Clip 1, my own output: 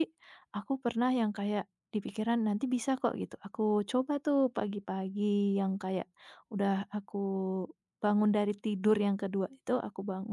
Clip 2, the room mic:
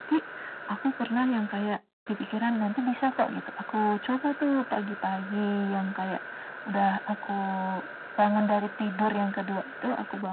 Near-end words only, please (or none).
none